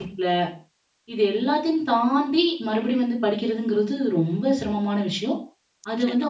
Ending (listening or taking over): listening